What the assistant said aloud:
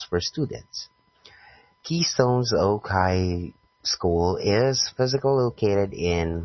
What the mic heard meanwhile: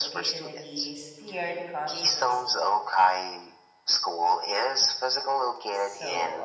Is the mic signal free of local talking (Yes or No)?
No